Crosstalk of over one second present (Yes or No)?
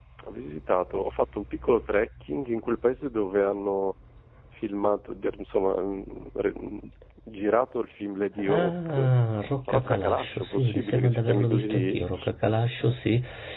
Yes